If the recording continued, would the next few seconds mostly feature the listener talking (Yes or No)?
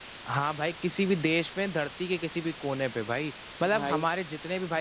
No